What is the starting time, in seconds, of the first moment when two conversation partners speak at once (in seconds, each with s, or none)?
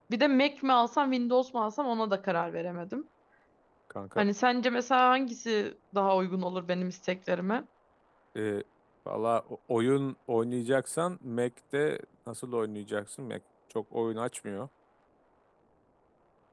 none